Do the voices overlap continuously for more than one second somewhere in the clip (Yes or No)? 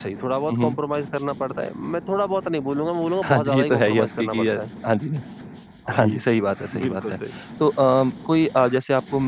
Yes